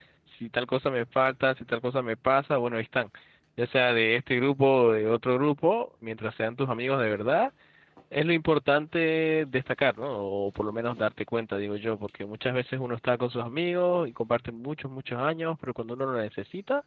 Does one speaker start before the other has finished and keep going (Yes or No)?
No